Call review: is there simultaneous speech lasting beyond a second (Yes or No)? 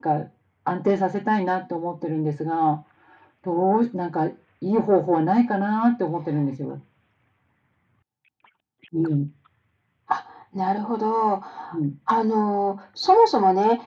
No